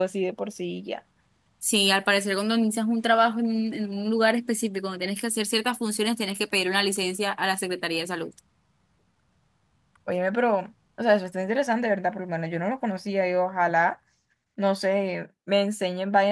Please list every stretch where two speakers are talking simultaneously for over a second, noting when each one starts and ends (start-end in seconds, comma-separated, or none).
none